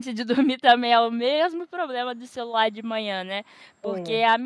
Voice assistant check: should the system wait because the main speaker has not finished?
Yes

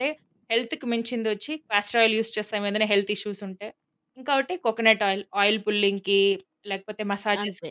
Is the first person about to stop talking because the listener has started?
Yes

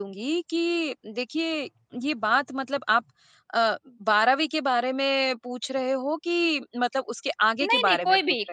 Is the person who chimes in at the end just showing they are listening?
No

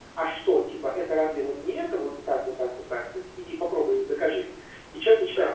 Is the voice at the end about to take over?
No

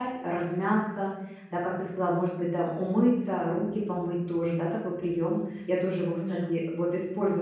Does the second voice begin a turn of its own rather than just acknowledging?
No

